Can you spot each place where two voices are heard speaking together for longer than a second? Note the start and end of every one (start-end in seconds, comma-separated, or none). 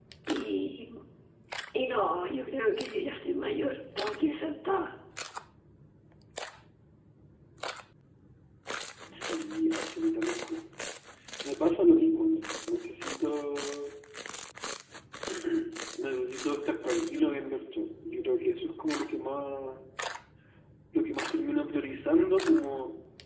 none